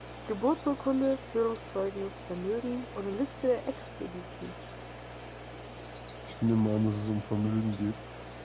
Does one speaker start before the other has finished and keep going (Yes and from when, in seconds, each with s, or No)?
No